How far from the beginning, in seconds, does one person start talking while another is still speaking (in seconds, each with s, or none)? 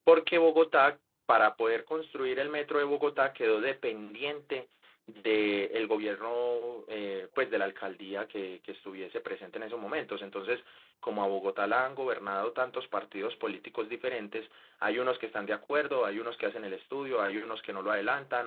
none